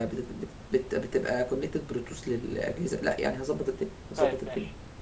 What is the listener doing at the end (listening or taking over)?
taking over